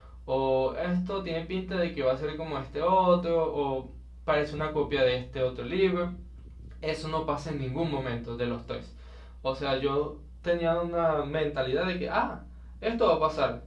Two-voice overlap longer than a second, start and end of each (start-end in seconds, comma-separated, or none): none